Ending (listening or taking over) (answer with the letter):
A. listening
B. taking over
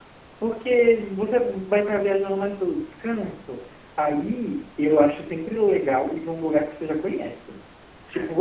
A